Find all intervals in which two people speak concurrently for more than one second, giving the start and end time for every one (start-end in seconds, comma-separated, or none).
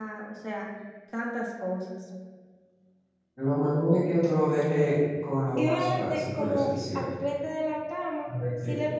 5.6-7.1